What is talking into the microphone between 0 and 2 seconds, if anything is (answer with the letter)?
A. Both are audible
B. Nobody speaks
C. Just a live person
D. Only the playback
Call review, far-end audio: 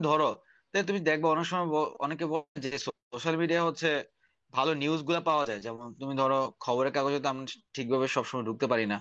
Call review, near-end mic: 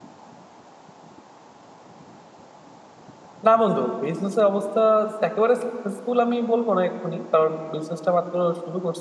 B